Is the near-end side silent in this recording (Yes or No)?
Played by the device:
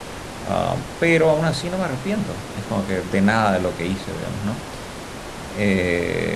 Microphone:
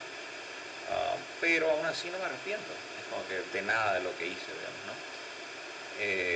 Yes